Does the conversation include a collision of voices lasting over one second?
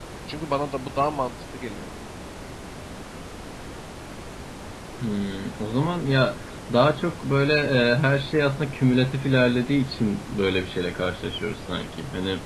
No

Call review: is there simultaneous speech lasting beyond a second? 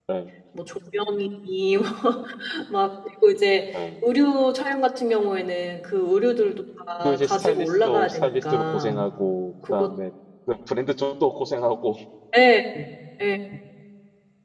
Yes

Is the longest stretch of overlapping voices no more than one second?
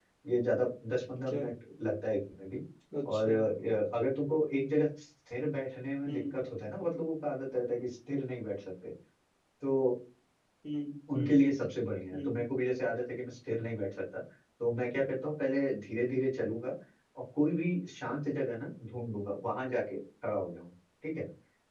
Yes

